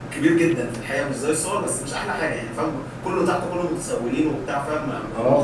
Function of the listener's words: taking over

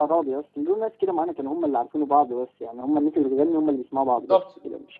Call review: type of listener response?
taking over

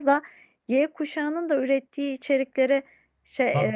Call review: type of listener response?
listening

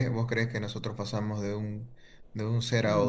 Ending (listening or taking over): taking over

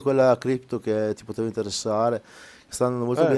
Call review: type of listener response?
listening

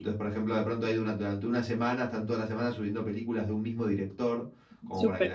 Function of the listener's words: listening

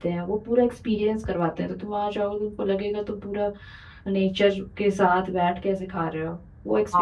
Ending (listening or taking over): taking over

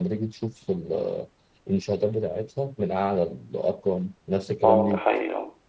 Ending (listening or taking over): taking over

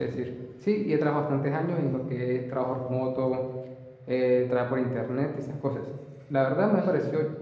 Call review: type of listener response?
listening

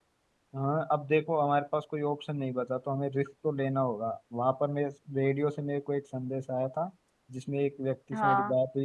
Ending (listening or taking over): listening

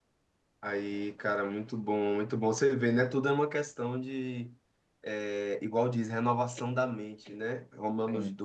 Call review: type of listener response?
listening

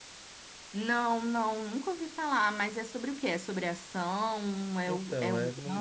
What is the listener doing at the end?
taking over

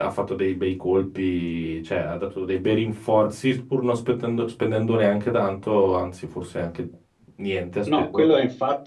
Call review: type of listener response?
taking over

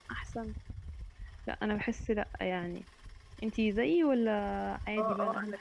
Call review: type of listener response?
taking over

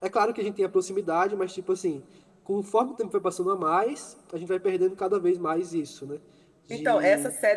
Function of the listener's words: taking over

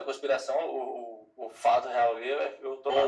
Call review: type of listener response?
taking over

